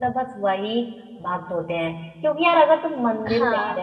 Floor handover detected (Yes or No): No